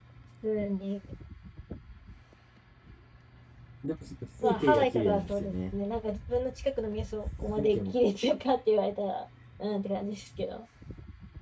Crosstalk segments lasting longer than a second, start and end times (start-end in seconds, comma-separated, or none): 4.4-5.7